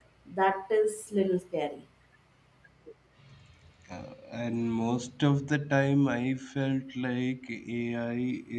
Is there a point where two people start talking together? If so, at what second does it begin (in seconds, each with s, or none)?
none